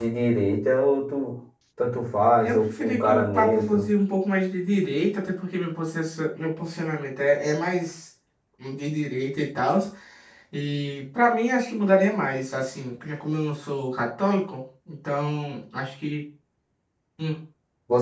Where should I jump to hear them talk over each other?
2.4 s

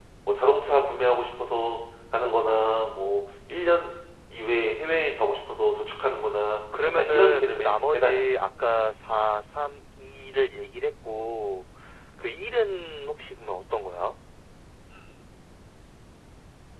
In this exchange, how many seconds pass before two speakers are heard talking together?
7.0 s

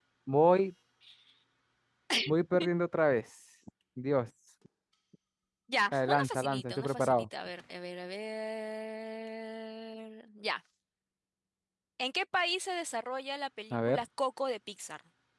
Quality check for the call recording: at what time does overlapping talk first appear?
5.9 s

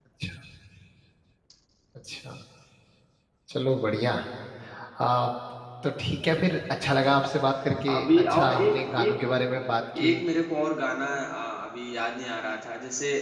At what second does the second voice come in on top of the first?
7.9 s

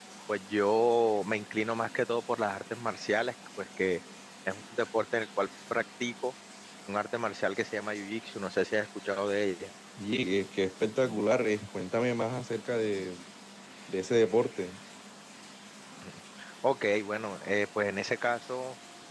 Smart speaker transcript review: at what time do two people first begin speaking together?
none

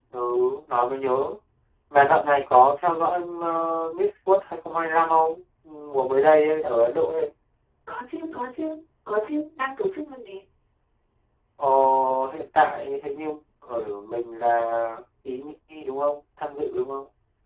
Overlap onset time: none

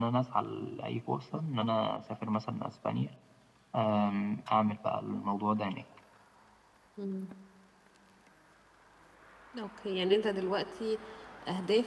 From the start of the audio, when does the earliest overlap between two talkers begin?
none

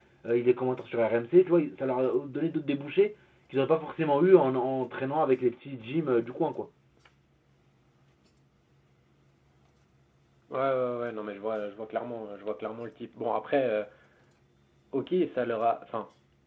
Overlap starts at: none

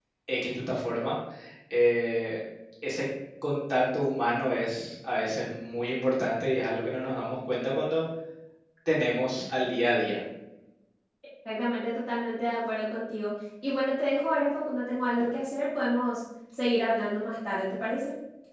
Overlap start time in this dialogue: none

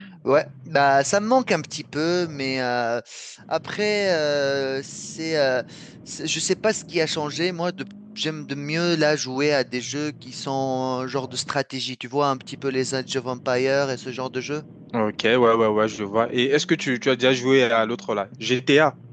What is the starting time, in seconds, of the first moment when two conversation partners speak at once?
none

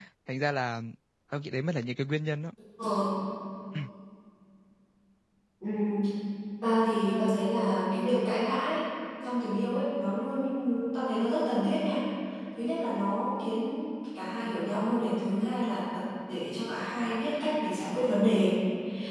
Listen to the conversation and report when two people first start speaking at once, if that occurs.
none

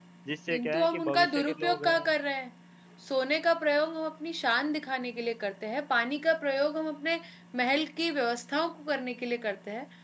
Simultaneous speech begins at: 0.5 s

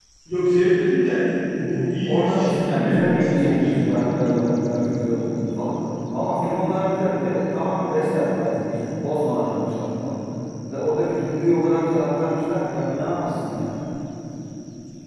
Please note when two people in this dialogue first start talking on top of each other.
2.0 s

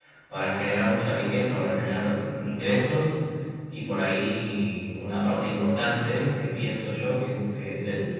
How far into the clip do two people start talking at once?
none

